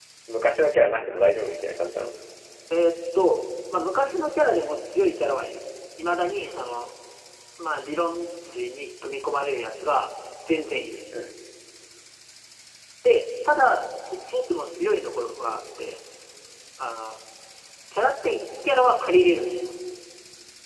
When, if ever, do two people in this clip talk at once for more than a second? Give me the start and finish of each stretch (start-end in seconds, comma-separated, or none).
none